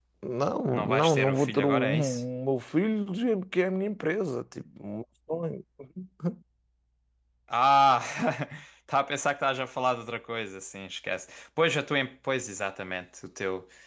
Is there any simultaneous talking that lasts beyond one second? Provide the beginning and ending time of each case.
0.7-2.2

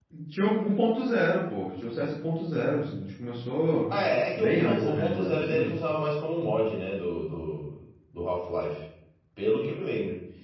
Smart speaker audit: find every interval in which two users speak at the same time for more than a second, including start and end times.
4.4-5.7

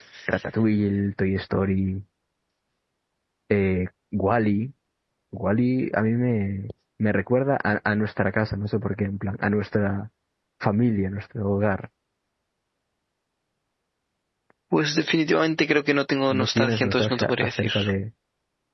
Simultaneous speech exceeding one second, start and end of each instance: 16.3-17.7

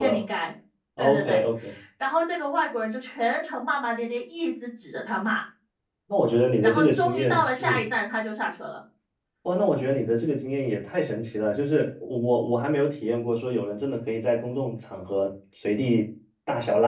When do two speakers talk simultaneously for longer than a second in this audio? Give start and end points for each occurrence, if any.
6.6-7.9

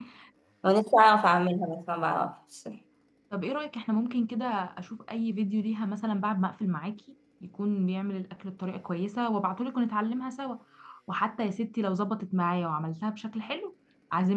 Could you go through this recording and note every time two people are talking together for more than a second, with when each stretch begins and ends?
none

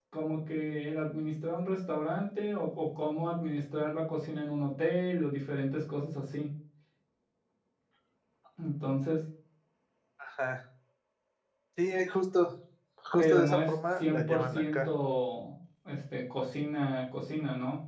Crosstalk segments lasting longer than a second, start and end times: 13.2-14.9

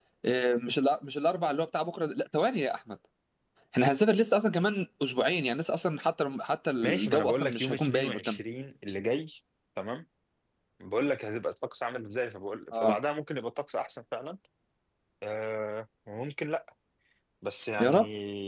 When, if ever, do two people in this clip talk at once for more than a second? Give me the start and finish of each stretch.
6.8-8.4

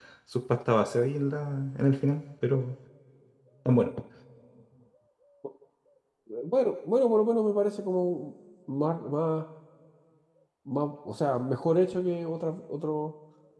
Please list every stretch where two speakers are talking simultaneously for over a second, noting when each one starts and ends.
none

